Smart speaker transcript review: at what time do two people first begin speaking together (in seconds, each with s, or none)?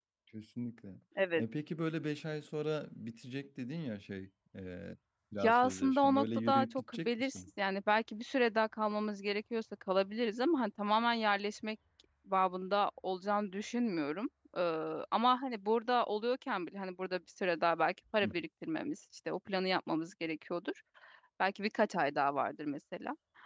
5.4 s